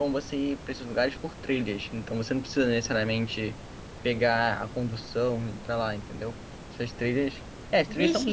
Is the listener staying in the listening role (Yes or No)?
No